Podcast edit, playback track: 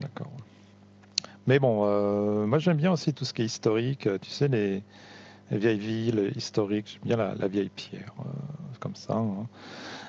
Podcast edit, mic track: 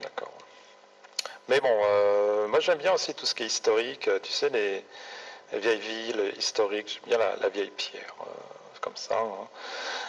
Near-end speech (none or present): none